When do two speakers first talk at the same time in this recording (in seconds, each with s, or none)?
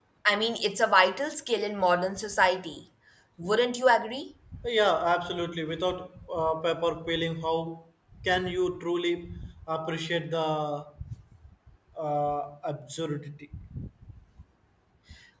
none